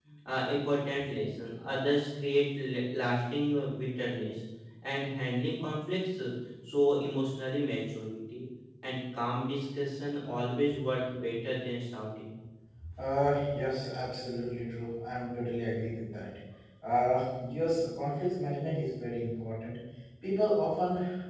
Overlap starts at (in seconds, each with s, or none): none